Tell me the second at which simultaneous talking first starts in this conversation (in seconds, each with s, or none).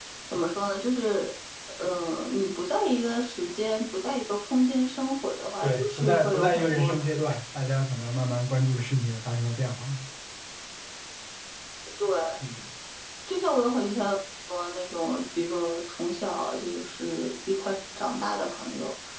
5.6 s